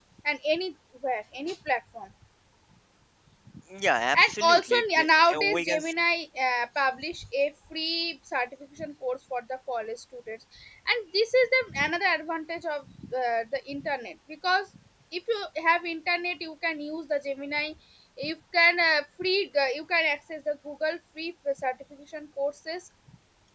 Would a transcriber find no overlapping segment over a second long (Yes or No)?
No